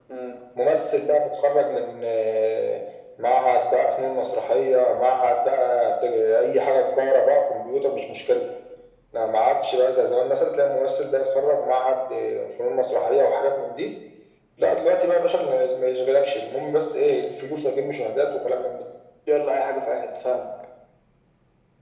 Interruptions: none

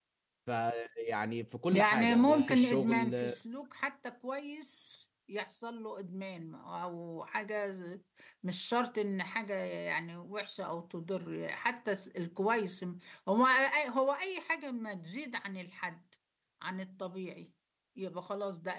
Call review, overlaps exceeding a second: present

